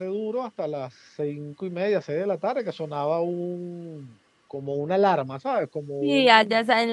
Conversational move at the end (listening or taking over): taking over